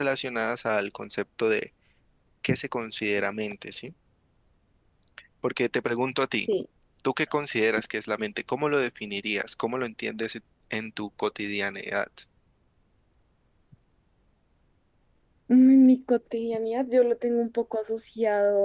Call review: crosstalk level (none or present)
none